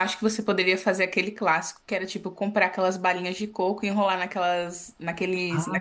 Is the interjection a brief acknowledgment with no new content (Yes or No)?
No